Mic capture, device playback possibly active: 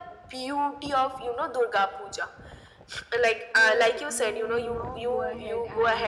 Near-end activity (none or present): present